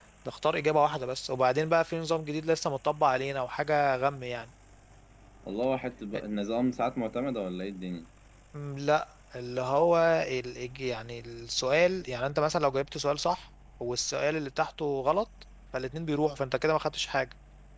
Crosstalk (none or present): none